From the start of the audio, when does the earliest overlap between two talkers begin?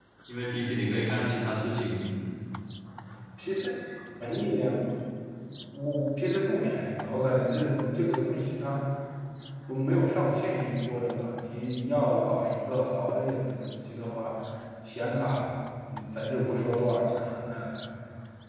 none

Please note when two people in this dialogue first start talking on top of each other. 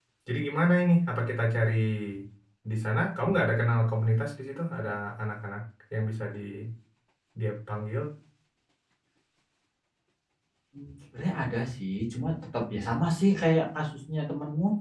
none

